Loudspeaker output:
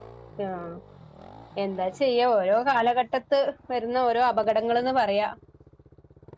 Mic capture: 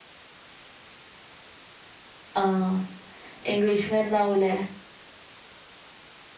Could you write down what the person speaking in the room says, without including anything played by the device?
ആഹ് ഇംഗ്ലീഷ് മരുന്നാവൂലേ

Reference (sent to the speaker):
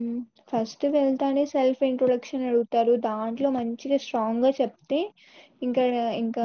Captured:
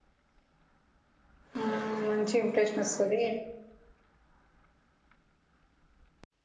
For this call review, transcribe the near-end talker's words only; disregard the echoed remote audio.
ఆ మంచి ఇంప్రెషన్ వస్తది

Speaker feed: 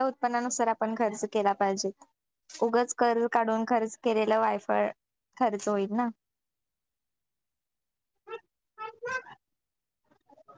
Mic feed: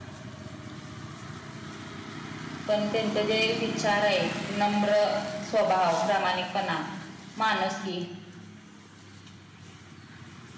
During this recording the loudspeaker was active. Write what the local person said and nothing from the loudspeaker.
पण त्यांचे जे विचार आहेत नम्र. स्वभाव प्रामाणिकपणा माणूस की

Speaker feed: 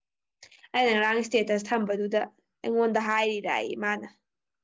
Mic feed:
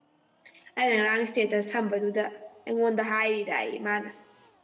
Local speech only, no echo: none

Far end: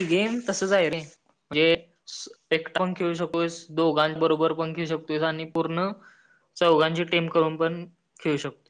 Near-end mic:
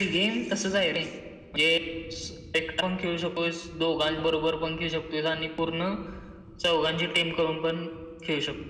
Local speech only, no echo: none

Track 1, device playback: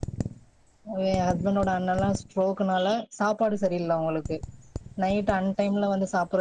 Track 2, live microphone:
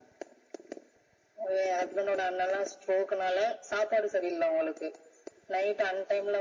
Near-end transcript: none

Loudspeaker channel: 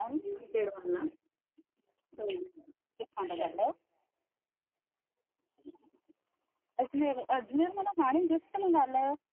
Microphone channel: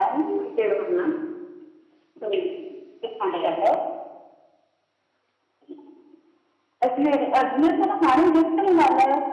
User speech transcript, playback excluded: none

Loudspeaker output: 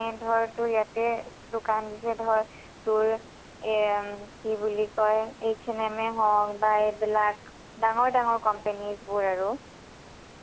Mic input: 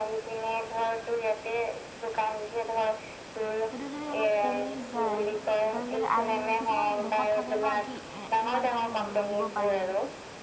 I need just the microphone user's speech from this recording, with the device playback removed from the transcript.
সেইটো যদি অলপ কমি যায়। এতিয়া যদি আইন কিছুমান দেশত থাকে ন কি এ ইমান তাহে জন্ম, দিব পাৰি

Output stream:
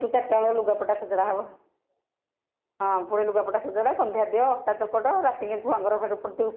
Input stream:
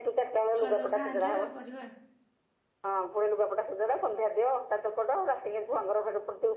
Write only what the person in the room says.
ଛୁଆ ସବୁ ଖାଆନ୍ତି ଏରା ପରିବା

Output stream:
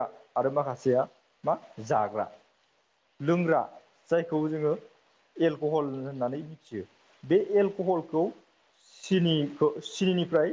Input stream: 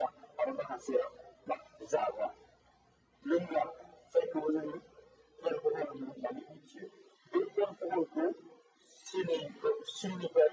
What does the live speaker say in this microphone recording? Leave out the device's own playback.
none

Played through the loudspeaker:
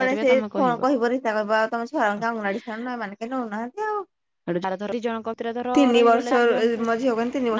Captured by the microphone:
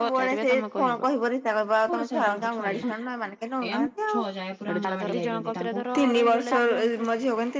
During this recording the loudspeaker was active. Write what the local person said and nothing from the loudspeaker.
ସେପେଟ ସାଇଟରୁ ଗୋଟେ ଛୁଆଡିଏ ଏଇ ଆମ ଛଅ ଯାଏ ପୁରା ଅଙ୍ଗାନାବାଡି ଯାଇଚନ୍ତି ତାଙ୍କୁ

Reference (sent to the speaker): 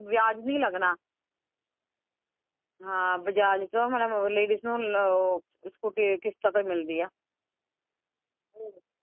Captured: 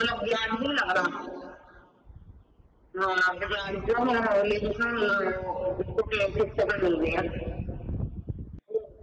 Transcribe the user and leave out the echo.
none

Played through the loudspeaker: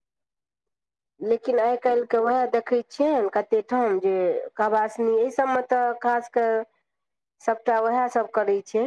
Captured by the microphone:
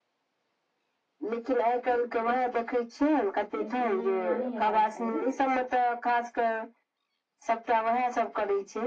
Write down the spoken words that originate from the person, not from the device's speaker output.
लेकिन नहि एना नहि हेबाक चाही

